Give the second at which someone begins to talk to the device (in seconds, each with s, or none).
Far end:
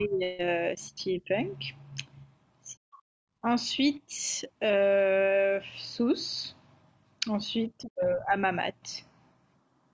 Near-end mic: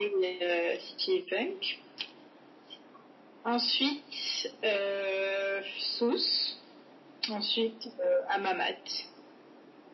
none